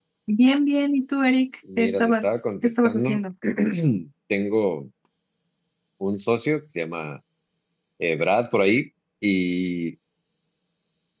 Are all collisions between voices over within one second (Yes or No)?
No